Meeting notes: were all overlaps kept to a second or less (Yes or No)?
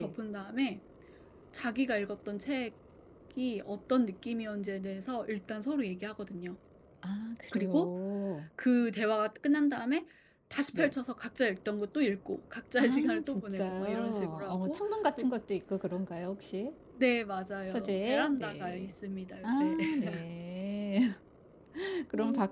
No